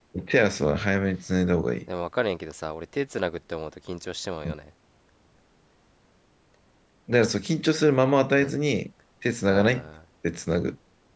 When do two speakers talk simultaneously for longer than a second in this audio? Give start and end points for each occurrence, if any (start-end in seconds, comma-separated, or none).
none